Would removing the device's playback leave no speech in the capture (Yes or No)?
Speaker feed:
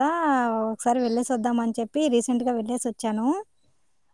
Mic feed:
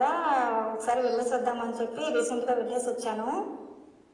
Yes